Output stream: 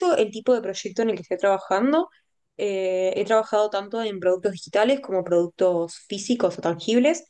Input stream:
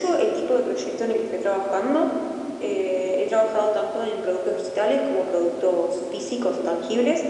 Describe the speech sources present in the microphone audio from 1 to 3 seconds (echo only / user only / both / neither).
echo only